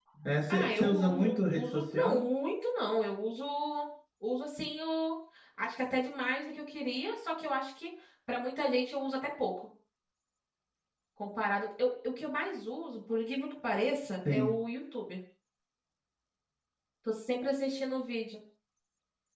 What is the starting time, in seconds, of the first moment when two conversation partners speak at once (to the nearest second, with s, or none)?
1 s